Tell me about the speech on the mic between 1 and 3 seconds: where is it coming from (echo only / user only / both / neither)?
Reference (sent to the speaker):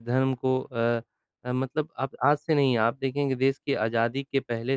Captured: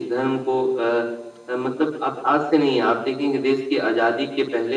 echo only